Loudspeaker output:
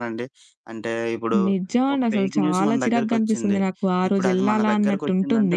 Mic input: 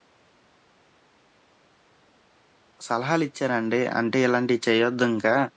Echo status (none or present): none